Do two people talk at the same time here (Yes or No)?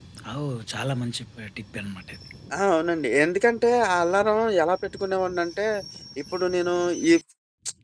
No